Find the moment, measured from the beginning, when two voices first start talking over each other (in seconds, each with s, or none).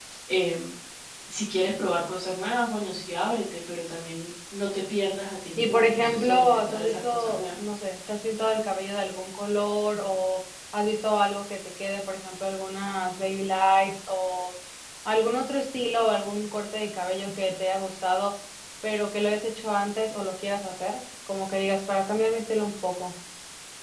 5.6 s